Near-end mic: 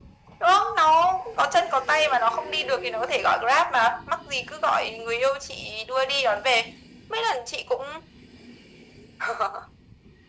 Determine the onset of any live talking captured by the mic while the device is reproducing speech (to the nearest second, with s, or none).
none